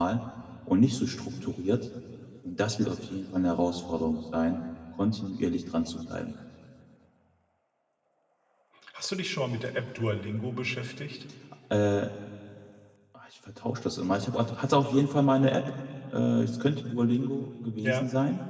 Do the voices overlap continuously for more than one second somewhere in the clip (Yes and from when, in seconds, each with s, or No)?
No